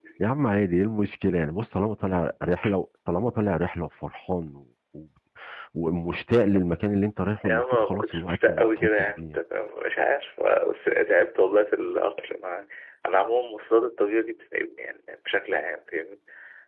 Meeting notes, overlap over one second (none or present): present